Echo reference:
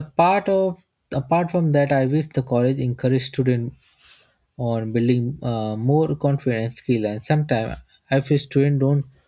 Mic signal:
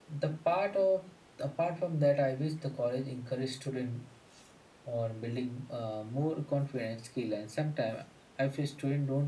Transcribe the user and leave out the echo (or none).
none